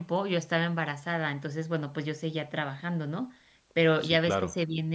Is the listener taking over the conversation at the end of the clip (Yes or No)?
No